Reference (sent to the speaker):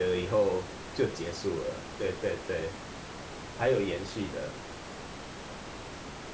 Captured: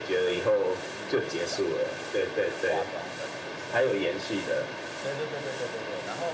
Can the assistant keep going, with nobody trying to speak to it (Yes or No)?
No